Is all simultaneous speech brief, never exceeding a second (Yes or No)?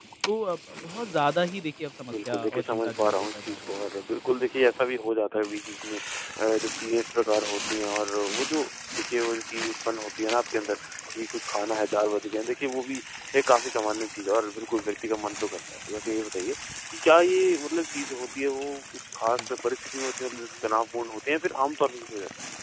No